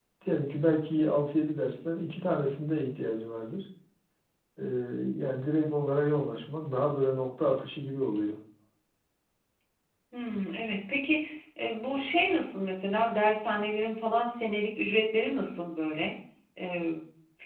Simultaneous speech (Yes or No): No